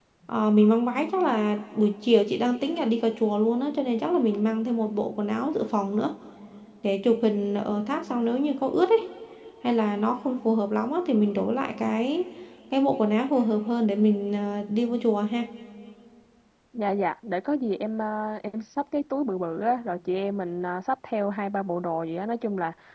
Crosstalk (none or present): none